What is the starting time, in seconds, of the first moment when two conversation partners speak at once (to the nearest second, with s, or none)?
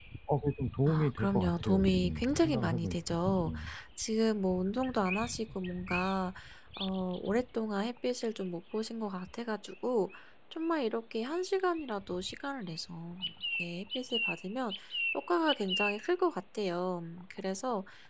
1 s